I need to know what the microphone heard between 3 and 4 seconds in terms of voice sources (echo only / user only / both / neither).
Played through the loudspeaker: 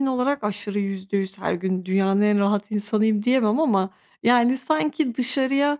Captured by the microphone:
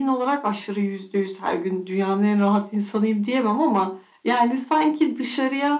echo only